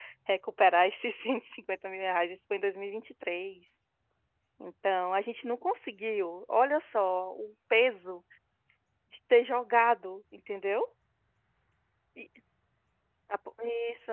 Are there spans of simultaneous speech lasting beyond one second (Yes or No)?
No